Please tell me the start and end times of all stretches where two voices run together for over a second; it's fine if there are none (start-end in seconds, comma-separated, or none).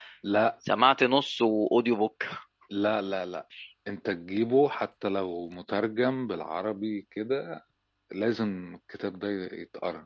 none